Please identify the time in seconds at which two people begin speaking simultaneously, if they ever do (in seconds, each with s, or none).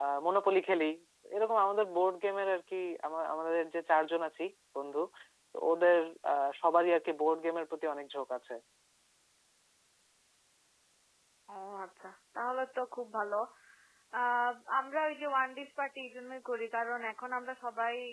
none